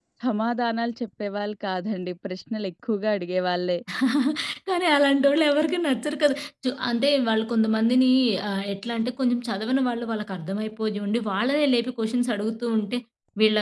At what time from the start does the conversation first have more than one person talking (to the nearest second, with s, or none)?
none